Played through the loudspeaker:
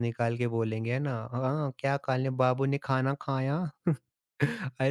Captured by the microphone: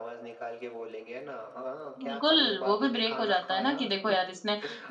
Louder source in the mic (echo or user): user